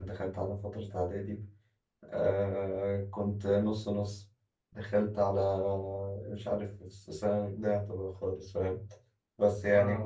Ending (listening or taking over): listening